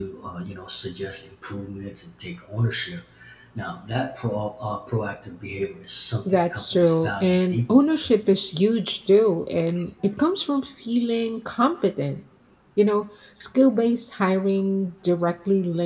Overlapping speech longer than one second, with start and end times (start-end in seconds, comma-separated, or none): 6.3-7.8